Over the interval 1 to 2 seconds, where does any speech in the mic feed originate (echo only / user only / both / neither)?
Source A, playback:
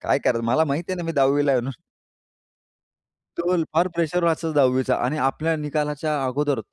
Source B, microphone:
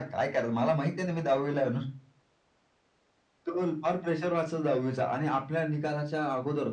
echo only